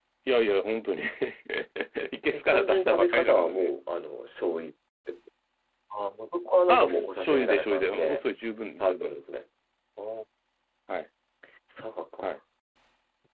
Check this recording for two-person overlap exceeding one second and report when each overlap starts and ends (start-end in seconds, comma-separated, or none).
2.3-3.7, 6.7-8.2